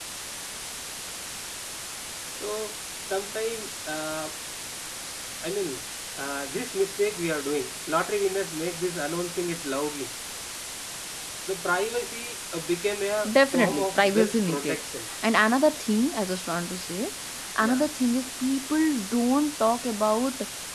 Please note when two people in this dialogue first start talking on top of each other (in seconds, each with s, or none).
13.5 s